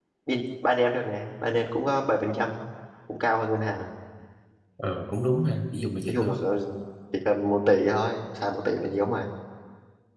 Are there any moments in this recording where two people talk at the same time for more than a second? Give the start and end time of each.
none

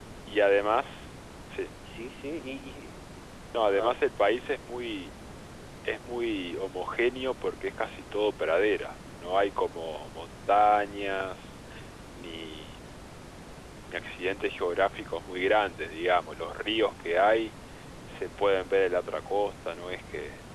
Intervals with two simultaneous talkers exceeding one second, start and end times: none

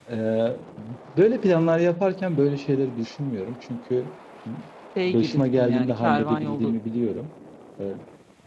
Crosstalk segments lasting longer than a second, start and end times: 5.0-6.7

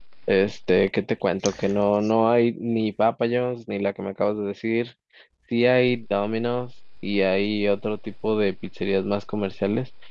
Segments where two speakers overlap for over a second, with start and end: none

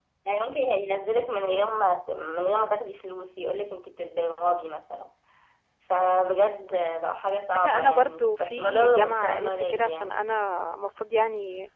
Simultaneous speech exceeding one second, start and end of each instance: 7.5-10.3

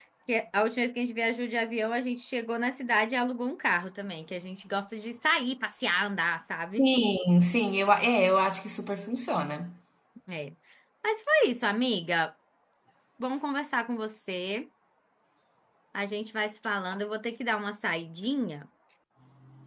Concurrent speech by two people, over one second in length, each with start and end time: none

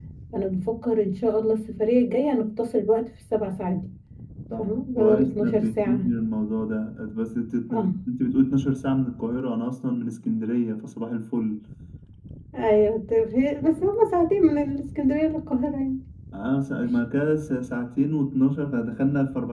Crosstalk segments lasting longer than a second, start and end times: 4.6-6.1

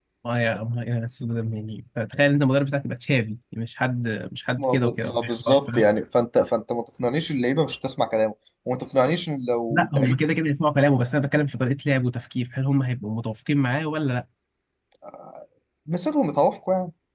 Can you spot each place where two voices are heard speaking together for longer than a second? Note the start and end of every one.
4.6-5.9

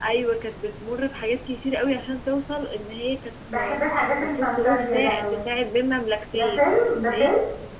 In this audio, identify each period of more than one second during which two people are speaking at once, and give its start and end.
3.5-5.4

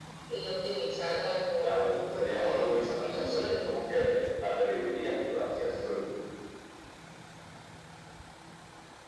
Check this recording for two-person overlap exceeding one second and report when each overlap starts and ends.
1.6-3.7

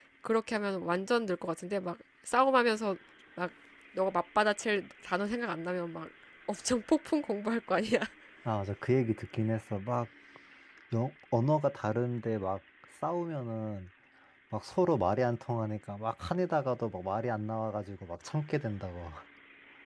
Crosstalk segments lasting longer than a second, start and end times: none

